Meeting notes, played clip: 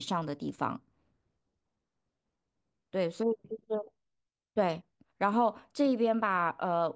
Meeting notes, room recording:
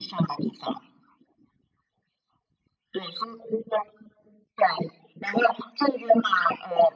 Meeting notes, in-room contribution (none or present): none